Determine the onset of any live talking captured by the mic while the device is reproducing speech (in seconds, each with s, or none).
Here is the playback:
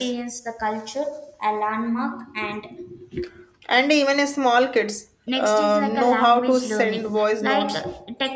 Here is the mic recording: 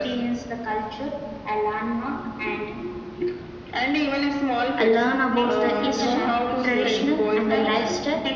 4.8 s